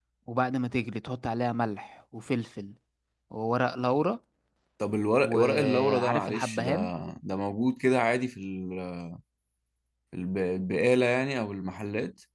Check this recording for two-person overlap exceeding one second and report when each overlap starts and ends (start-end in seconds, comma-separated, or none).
5.2-6.7